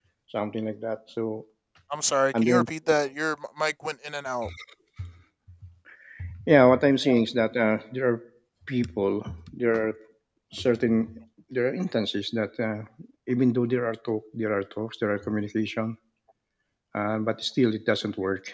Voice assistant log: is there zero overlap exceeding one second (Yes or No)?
Yes